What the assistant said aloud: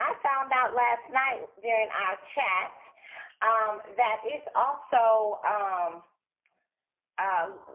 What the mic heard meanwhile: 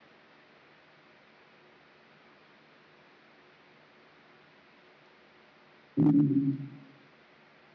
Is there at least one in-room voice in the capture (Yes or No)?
Yes